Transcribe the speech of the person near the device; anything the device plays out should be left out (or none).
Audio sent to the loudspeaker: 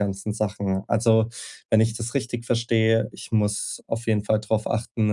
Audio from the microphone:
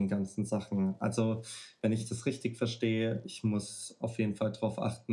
none